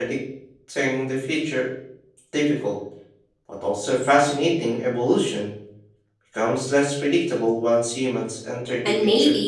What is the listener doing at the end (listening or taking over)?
taking over